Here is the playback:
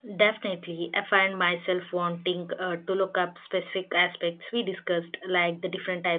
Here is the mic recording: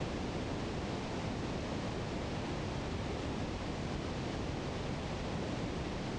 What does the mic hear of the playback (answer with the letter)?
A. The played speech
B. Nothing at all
B